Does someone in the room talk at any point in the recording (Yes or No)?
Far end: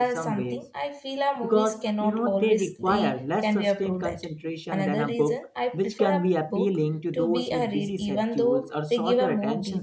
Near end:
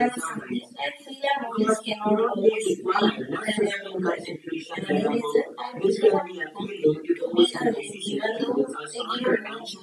No